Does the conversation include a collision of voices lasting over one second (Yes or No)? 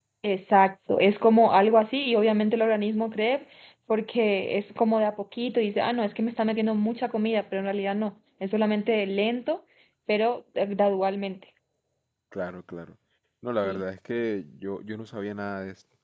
No